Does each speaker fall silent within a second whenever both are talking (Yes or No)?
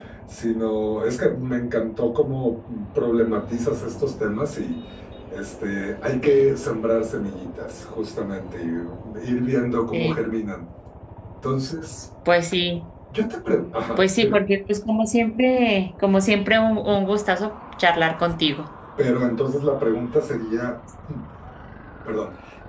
Yes